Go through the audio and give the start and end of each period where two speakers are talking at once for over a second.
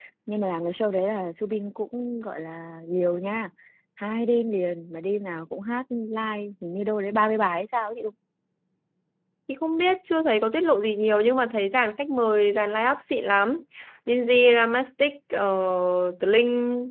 none

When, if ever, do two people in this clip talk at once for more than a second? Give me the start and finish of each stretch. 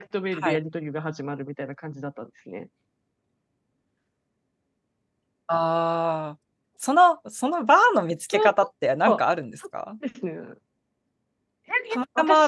none

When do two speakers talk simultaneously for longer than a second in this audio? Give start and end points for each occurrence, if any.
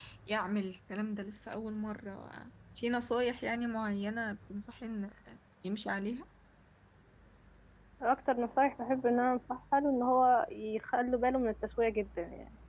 none

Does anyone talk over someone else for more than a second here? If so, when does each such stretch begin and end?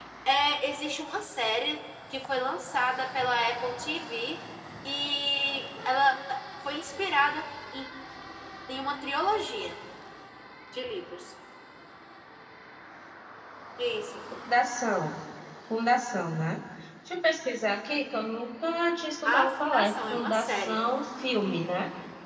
19.2-20.8

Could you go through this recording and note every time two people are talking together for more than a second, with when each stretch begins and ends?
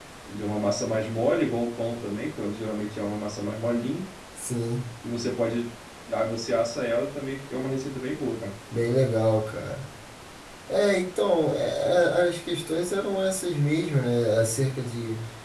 none

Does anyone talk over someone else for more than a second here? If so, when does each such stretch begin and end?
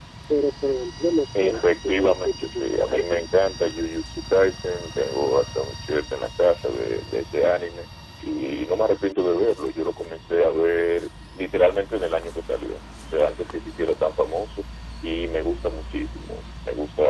1.4-3.3

